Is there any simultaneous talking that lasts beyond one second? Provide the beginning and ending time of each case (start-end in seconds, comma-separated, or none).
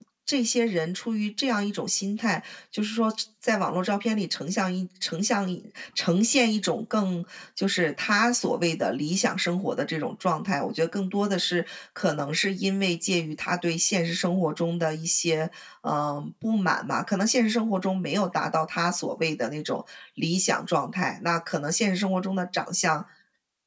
none